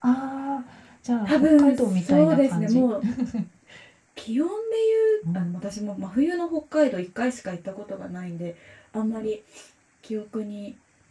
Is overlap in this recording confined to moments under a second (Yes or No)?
No